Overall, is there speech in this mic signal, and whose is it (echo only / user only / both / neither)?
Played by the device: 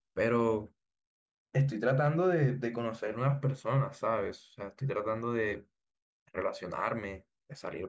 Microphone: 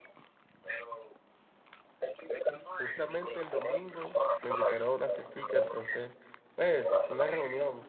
both